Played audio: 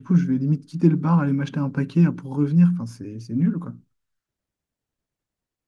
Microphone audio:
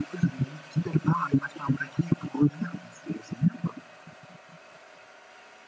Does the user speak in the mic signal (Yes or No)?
No